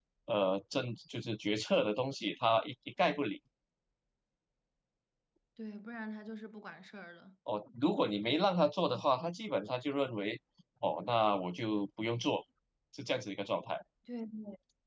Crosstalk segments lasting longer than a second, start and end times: none

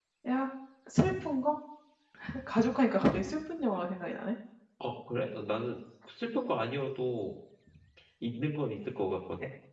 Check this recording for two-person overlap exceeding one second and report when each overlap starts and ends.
none

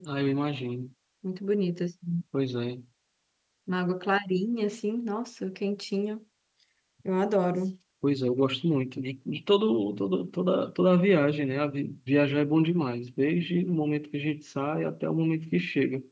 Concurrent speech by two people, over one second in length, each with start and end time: none

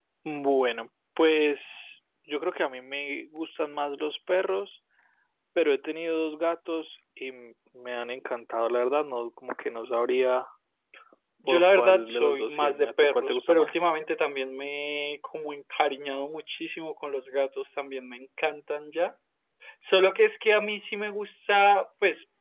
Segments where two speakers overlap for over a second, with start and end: 11.4-13.8

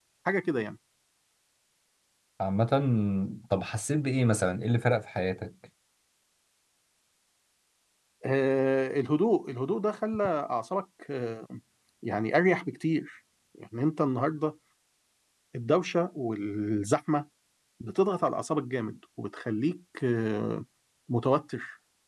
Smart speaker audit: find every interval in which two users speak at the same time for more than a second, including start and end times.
none

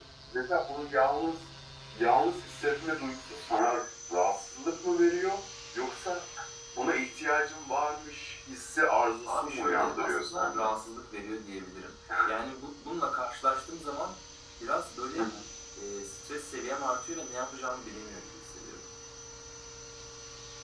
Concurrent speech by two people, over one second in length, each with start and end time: 9.3-10.7

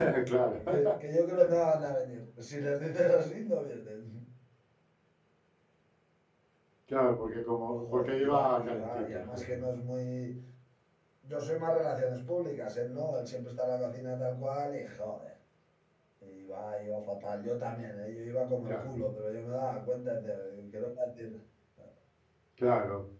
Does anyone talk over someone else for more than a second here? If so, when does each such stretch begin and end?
7.7-9.7

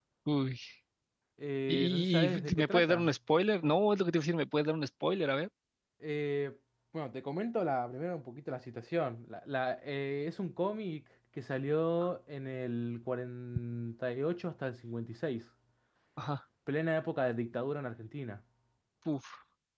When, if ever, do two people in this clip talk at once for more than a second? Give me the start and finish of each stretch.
1.7-3.1

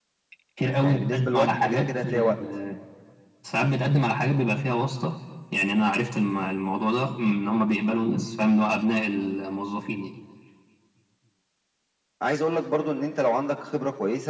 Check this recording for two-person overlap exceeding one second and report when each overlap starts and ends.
0.8-2.4

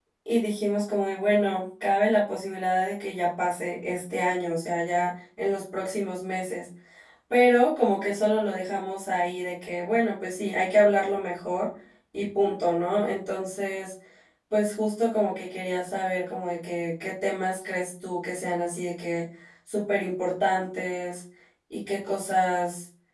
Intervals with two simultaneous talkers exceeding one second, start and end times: none

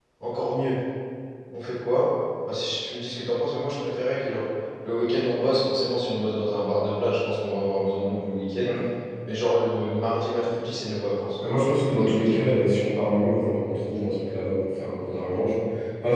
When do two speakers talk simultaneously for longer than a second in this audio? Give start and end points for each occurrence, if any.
none

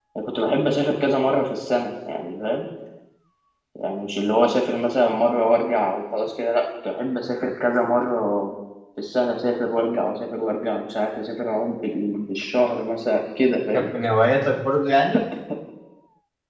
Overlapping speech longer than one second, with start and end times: none

